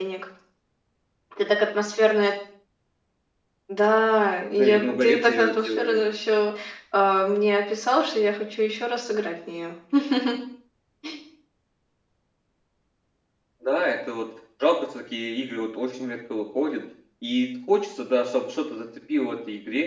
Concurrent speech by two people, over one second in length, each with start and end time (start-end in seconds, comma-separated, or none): 4.5-6.0